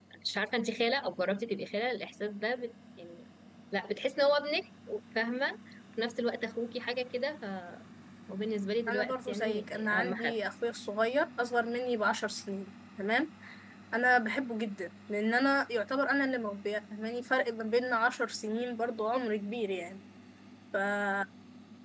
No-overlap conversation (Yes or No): No